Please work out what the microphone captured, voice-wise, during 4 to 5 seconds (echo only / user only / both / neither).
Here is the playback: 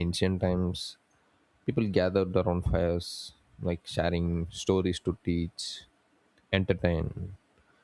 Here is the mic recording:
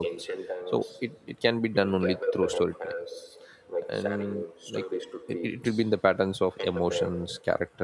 both